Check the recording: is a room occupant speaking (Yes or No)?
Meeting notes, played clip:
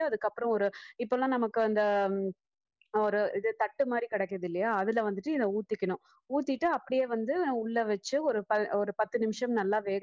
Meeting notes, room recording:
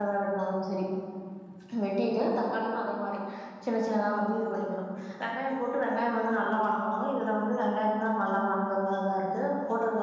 Yes